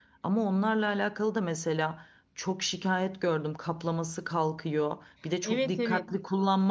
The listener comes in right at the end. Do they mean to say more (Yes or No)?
No